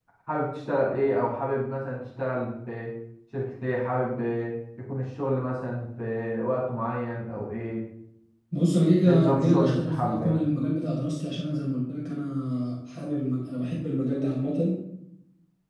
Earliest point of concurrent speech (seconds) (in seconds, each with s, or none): 9.1 s